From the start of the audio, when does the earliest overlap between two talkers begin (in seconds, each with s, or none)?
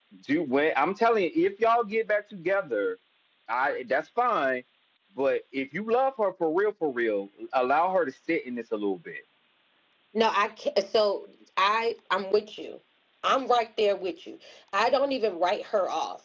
none